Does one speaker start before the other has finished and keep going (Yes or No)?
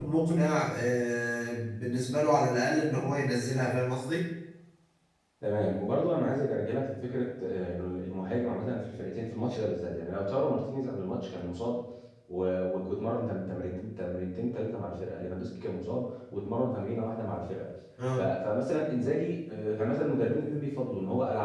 No